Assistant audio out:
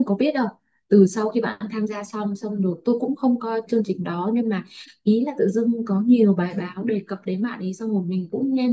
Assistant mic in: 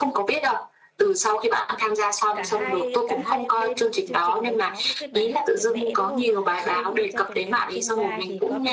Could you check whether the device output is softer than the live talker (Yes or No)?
No